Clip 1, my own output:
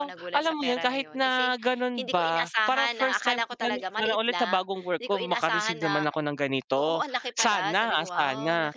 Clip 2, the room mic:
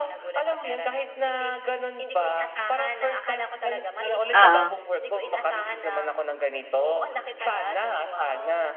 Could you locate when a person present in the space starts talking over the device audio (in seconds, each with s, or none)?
4.3 s